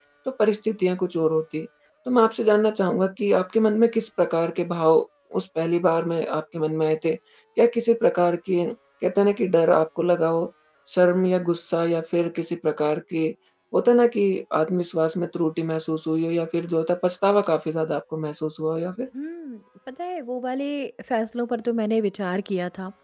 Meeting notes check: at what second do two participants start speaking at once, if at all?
none

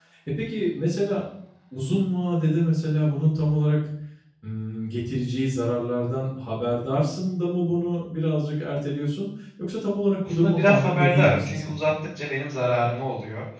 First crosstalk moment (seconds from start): 10.4 s

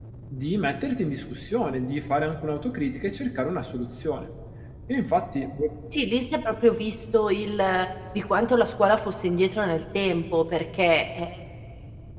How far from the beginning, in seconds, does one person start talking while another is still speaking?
none

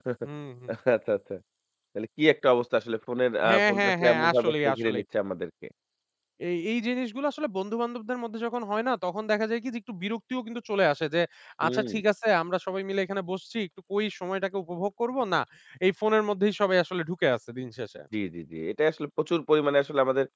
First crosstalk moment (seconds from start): 3.5 s

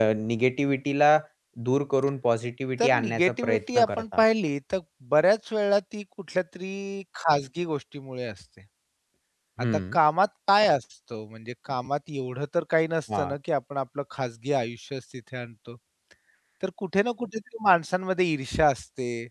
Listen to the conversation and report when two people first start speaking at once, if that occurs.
2.8 s

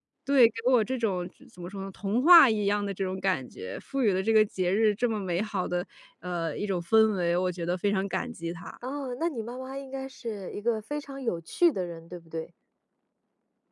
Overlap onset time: none

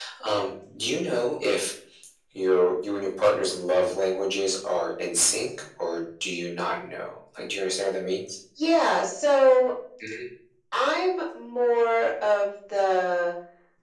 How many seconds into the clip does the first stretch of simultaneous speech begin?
none

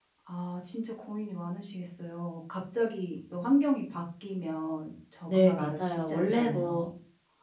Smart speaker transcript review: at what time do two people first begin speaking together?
5.3 s

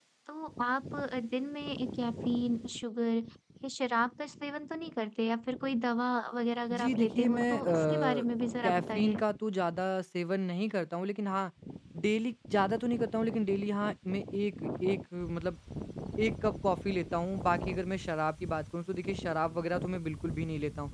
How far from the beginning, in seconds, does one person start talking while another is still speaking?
6.7 s

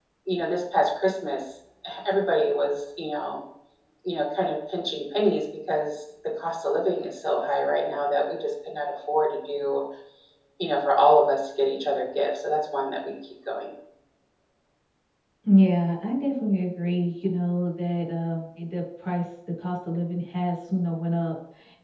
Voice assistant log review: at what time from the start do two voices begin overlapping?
none

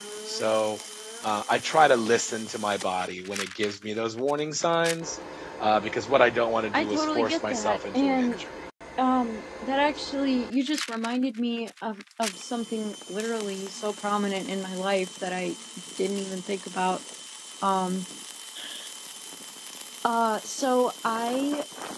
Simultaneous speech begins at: 6.7 s

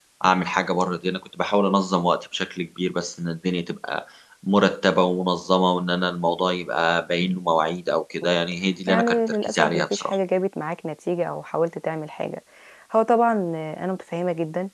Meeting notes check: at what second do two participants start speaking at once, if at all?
8.9 s

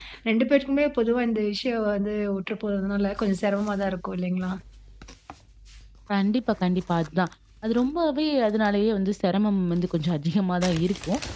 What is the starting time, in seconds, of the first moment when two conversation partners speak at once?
none

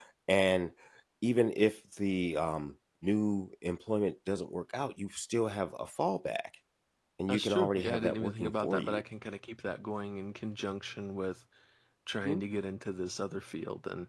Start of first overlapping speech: 7.3 s

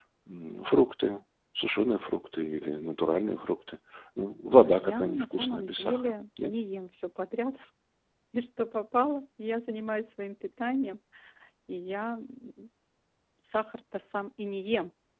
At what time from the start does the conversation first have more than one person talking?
4.6 s

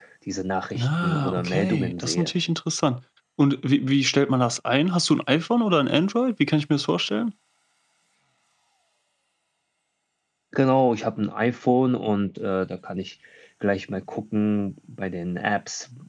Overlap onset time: 0.8 s

